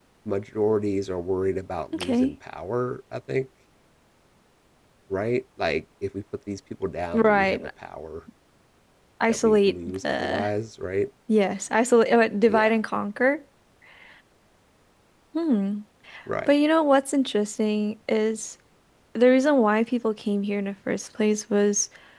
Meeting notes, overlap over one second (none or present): present